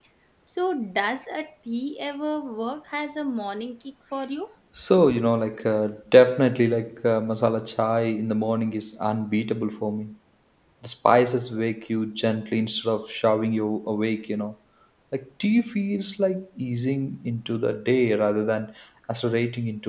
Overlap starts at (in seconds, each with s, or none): none